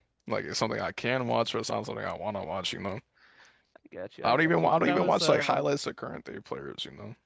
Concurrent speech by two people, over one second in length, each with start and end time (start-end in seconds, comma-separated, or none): 4.2-5.6